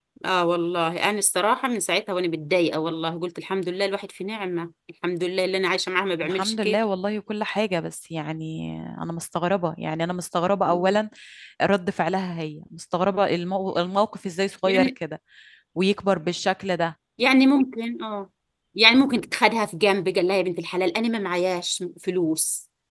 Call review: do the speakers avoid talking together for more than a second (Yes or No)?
Yes